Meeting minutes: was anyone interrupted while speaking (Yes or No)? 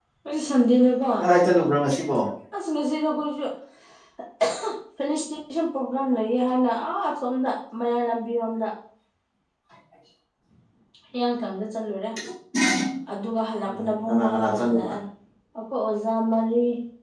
Yes